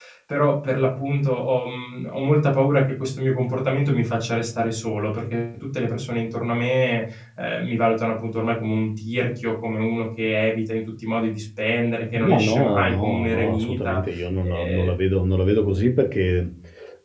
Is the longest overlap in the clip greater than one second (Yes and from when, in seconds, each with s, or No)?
Yes, from 12.1 s